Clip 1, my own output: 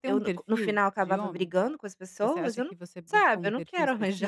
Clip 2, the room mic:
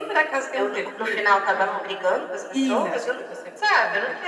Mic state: both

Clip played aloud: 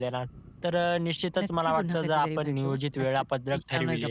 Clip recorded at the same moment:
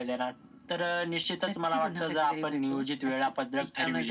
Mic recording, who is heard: echo only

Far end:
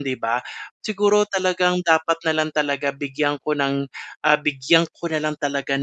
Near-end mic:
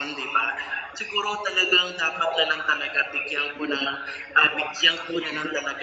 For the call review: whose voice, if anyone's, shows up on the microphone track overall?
echo only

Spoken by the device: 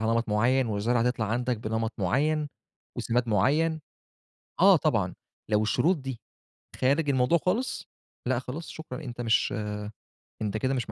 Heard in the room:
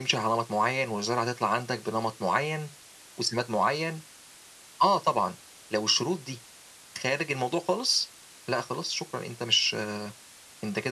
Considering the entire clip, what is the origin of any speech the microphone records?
echo only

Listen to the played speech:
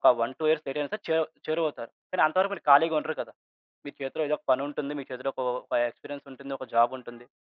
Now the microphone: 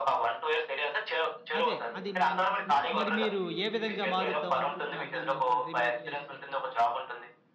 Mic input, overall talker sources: both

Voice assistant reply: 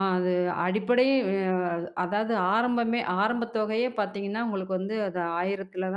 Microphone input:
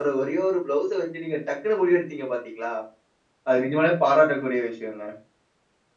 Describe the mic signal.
user only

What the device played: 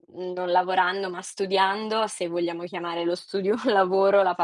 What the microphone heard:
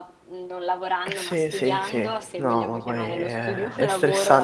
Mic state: both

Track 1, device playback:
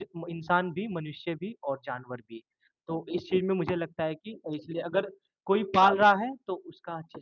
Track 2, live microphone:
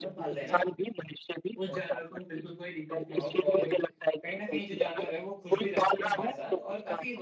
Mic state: both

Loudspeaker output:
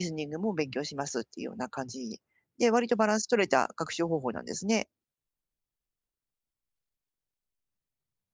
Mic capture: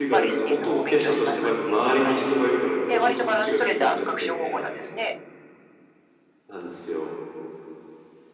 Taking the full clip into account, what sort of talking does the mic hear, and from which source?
both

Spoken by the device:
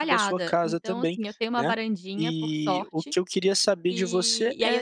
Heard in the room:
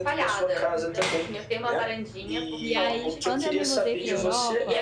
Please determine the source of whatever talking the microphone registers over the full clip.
both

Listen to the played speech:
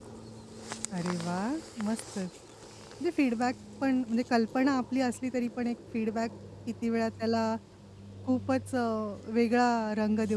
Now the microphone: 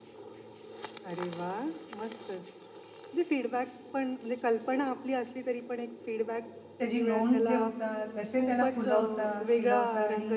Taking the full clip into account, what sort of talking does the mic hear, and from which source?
both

